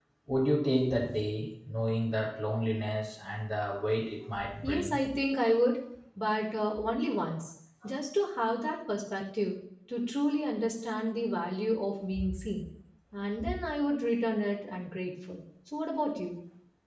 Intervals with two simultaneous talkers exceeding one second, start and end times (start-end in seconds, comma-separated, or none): none